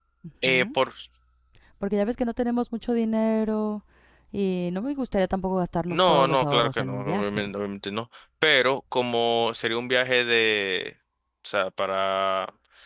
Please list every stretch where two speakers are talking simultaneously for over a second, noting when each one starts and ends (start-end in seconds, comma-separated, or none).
5.9-7.6